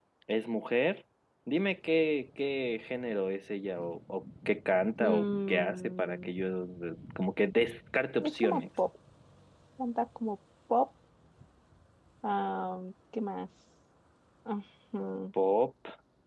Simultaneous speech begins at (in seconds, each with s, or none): 5.0 s